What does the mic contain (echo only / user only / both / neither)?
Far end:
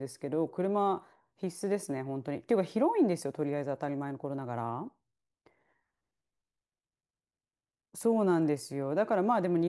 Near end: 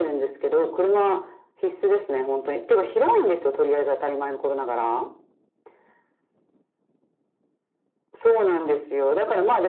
echo only